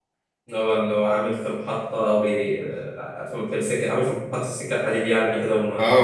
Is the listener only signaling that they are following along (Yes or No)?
No